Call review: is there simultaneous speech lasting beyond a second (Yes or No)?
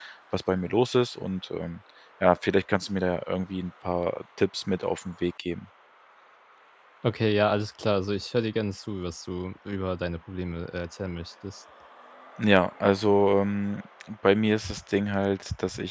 No